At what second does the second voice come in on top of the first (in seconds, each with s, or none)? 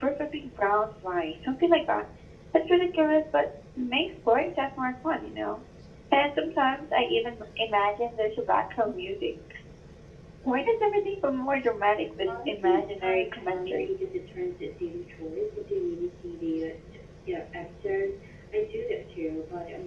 12.2 s